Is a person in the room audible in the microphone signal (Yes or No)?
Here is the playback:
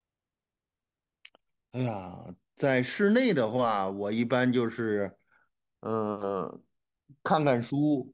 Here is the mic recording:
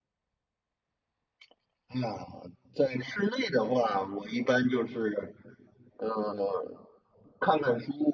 No